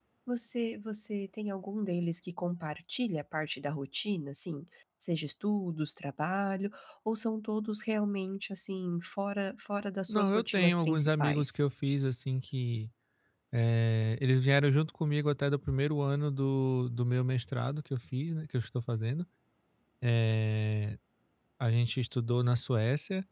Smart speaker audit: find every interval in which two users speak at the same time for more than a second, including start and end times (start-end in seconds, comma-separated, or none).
10.1-11.6